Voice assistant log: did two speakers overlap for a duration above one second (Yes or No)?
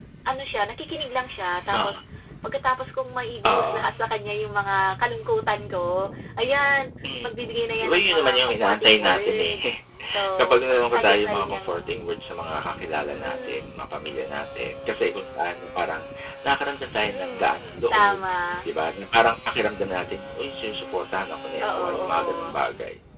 Yes